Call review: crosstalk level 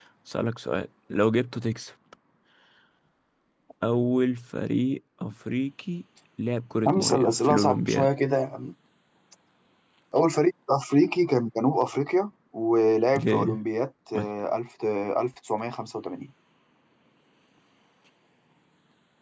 present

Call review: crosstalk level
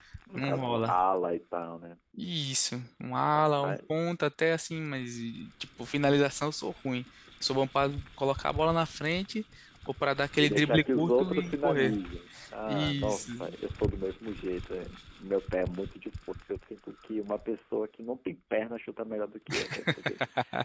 present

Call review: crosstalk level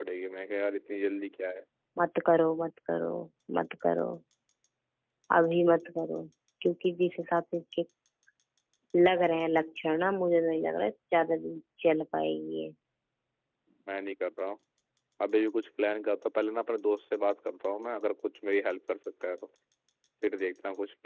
none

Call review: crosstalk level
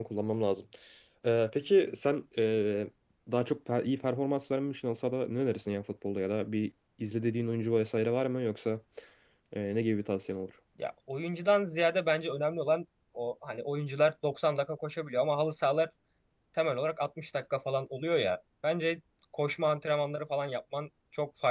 none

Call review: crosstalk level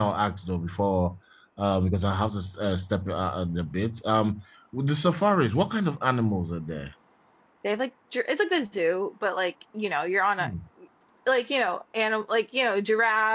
none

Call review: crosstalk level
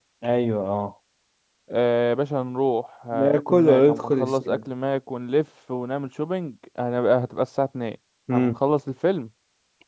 present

